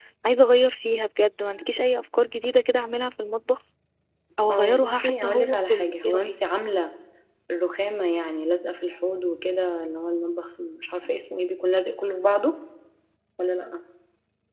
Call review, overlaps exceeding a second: present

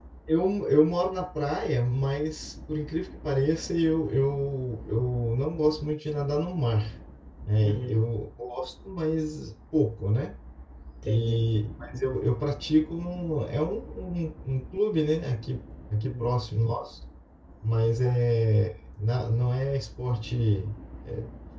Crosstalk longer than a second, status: none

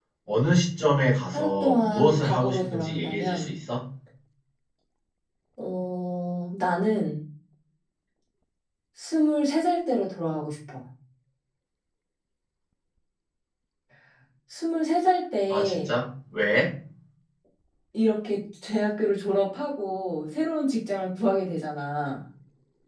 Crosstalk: present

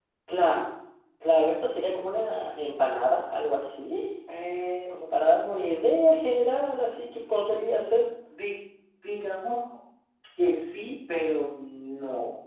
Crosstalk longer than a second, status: none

